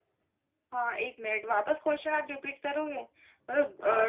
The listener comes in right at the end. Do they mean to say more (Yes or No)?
Yes